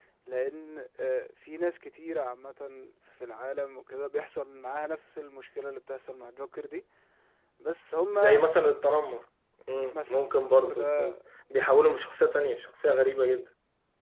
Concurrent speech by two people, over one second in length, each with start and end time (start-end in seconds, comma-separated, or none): 9.9-11.1